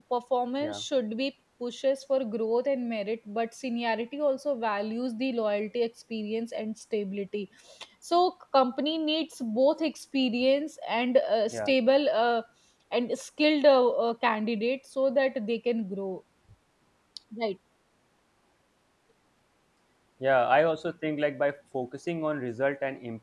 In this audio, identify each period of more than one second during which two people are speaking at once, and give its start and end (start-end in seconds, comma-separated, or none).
none